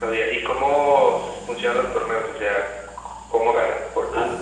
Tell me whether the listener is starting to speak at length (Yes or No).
Yes